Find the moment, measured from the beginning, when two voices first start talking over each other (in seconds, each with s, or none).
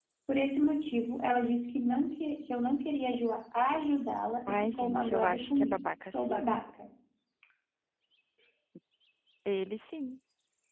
4.5 s